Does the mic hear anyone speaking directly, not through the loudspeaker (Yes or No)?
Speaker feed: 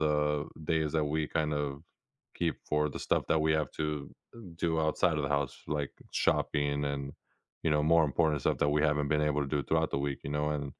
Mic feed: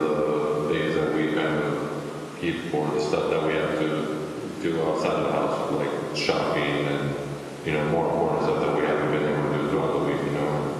No